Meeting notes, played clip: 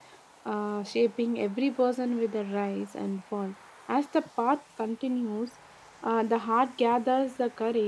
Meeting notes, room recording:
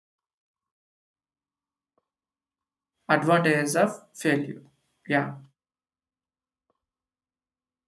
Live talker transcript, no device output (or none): Advantages of failure. Yeah,